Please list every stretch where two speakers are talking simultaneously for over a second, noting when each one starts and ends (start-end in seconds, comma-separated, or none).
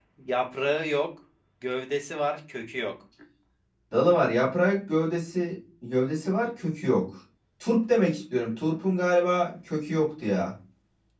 none